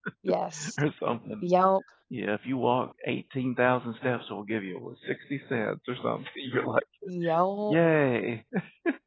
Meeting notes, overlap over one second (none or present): none